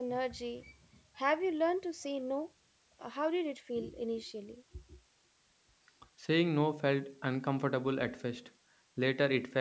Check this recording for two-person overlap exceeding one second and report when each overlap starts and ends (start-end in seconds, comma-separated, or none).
none